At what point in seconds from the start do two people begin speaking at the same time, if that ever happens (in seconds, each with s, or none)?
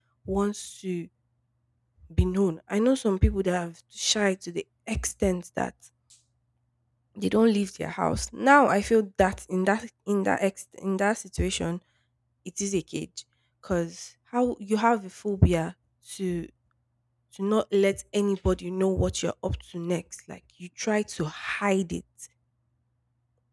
none